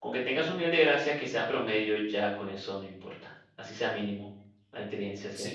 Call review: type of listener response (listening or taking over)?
taking over